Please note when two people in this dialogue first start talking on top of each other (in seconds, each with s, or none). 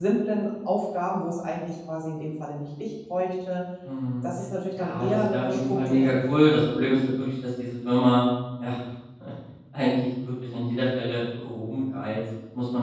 4.8 s